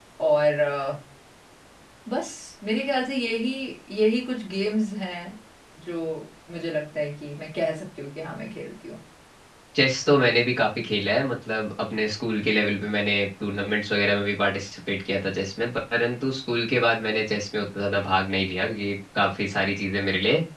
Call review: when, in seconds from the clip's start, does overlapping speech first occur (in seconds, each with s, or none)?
none